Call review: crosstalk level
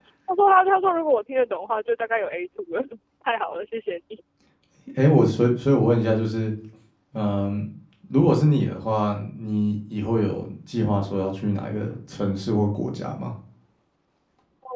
none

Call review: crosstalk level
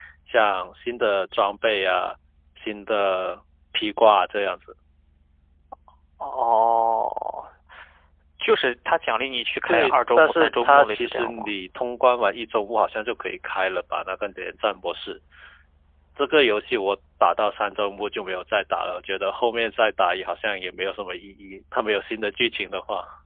present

